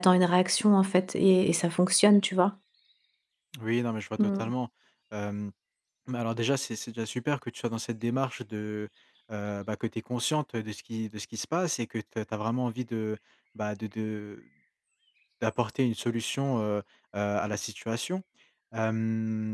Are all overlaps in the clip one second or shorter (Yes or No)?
Yes